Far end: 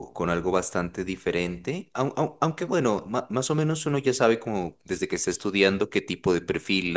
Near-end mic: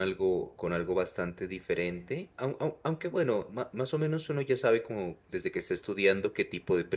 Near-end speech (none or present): none